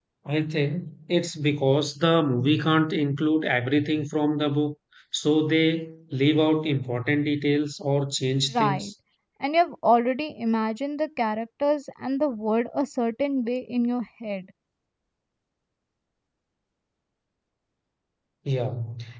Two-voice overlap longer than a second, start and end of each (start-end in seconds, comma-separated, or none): none